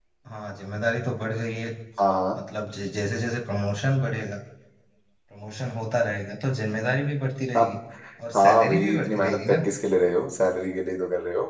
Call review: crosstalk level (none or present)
present